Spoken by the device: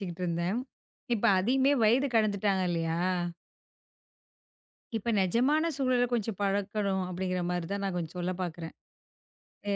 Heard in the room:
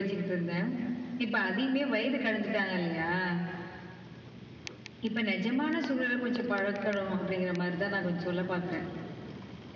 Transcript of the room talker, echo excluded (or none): none